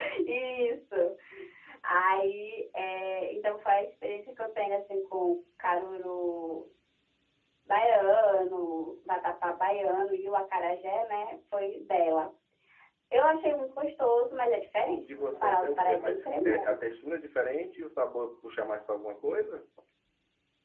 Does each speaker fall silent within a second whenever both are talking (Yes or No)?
No